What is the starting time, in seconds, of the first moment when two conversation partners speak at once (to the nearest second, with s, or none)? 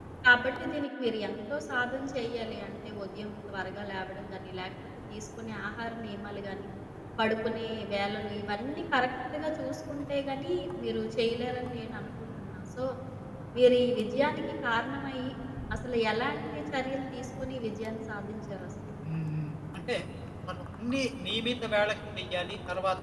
none